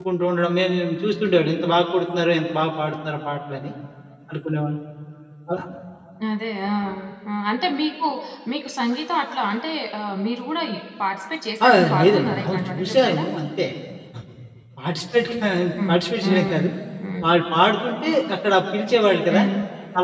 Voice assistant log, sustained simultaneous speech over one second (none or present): present